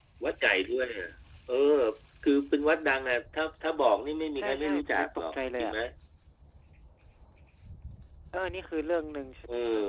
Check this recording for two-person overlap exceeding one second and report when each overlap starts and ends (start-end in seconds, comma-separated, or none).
4.4-5.7